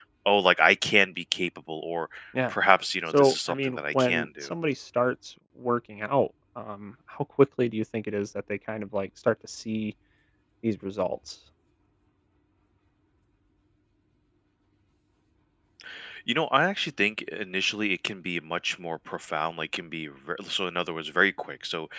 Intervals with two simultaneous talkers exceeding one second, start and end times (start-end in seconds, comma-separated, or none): 3.1-4.5